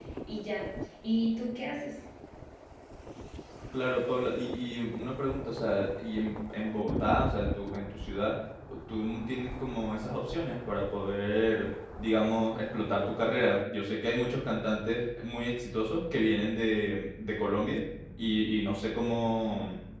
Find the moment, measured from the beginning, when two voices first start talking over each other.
none

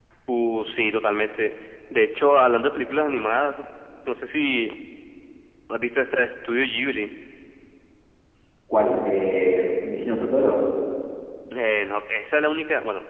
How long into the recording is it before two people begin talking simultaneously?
none

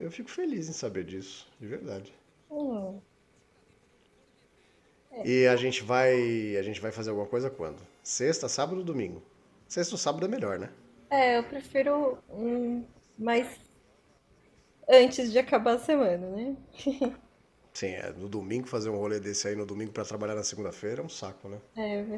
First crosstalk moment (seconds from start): none

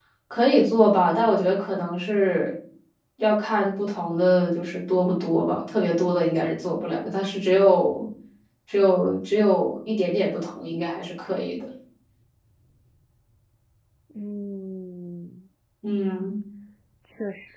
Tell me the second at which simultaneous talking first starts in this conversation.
none

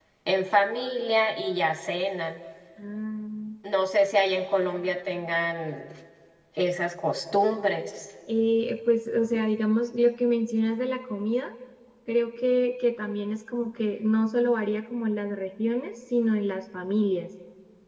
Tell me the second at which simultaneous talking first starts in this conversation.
none

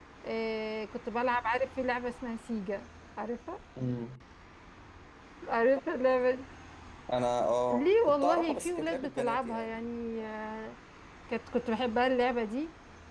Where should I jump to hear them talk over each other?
8 s

